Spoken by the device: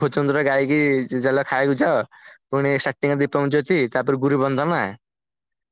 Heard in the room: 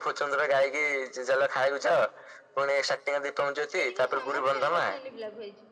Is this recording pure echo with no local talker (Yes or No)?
No